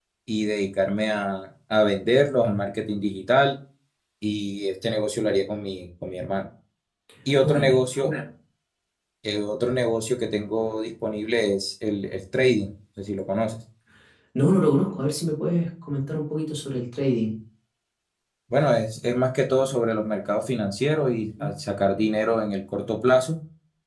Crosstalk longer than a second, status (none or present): none